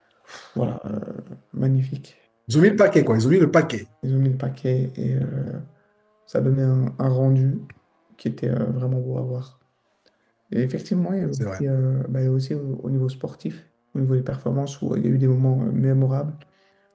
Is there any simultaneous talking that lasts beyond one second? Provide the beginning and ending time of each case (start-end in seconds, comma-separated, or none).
none